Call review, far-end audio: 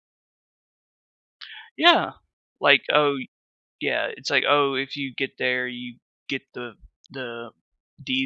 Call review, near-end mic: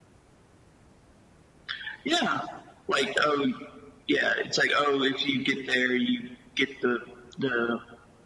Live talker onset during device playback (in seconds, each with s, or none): none